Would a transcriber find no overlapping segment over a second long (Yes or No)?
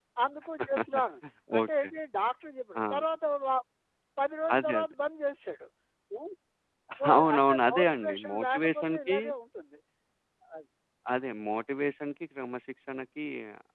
No